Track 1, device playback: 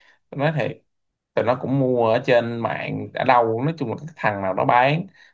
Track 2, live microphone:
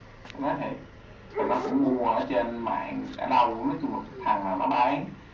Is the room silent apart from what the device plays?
Yes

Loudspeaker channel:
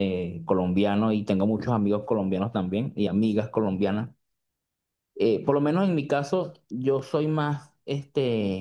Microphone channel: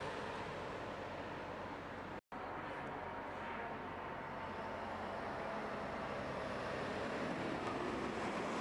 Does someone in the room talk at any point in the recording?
No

